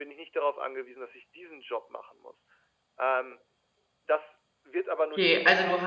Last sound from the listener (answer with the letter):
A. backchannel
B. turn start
B